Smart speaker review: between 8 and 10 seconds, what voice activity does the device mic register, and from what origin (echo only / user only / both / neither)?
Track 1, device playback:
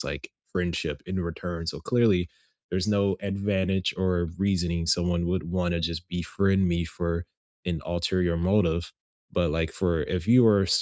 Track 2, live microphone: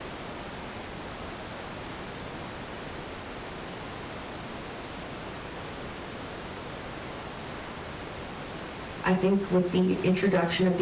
user only